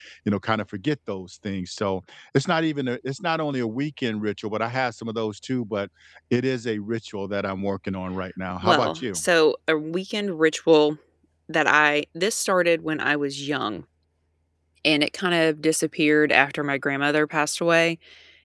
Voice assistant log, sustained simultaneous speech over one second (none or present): none